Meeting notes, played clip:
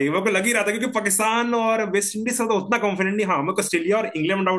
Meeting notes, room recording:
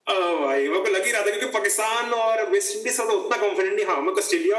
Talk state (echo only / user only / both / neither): echo only